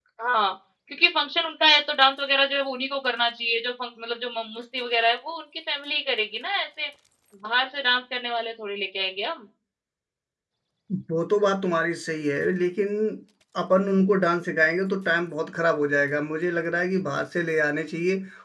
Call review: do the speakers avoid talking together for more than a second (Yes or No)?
Yes